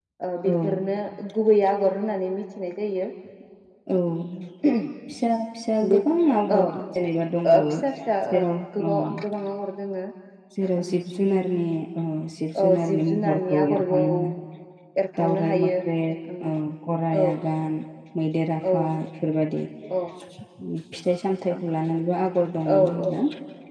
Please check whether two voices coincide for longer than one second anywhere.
Yes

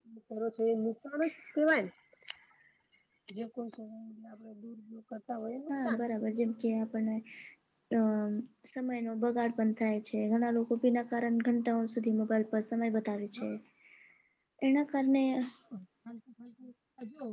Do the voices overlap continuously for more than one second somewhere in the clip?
No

